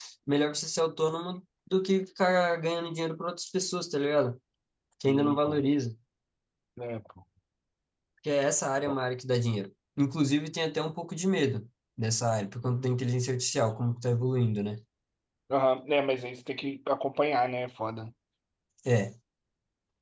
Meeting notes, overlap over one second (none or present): none